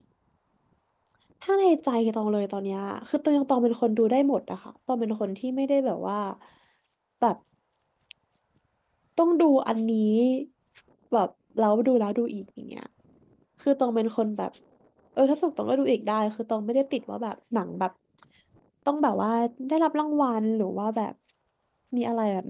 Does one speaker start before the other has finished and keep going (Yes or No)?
No